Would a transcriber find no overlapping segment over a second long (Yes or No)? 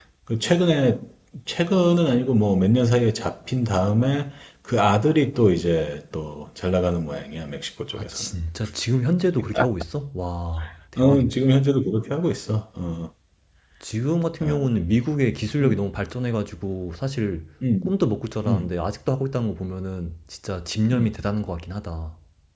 Yes